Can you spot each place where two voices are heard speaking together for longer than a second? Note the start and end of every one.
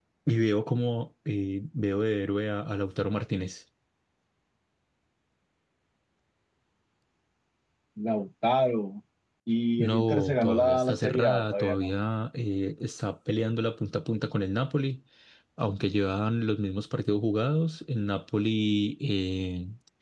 9.8-11.9

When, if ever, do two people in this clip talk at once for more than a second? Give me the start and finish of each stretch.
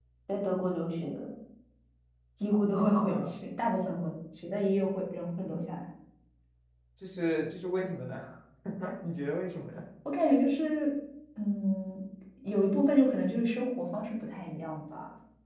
none

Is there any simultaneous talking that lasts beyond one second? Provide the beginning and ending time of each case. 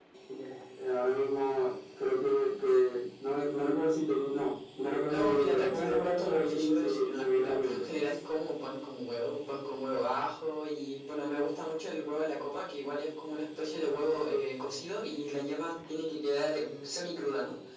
5.1-7.8

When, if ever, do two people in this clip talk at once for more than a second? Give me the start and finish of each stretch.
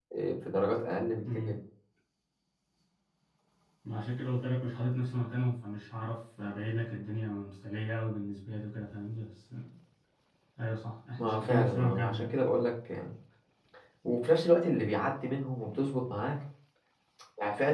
11.2-12.4

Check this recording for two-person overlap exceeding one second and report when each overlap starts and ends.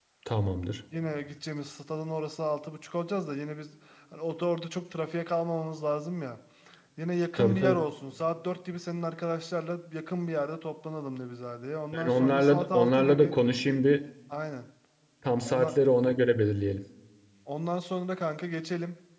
11.9-13.3

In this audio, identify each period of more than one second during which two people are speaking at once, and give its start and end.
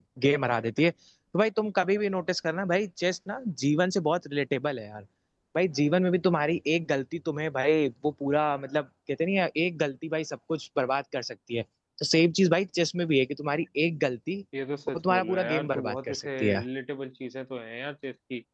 14.9-16.6

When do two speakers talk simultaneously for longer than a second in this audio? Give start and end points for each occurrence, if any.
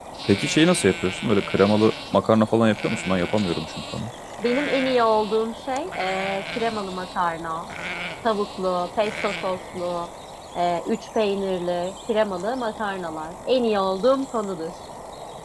none

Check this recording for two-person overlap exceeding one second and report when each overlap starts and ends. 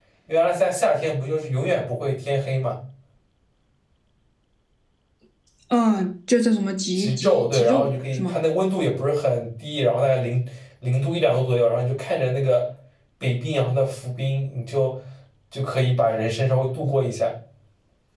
7.0-8.4

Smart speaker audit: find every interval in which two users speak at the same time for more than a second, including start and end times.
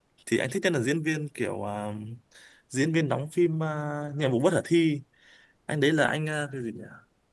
none

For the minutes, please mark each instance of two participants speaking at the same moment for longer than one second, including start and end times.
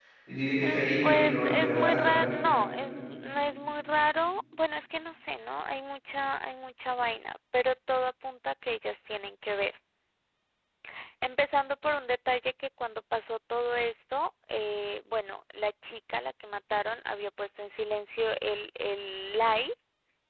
0.6-2.3

